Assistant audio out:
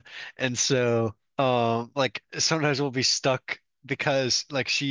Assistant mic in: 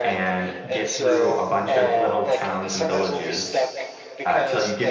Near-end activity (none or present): present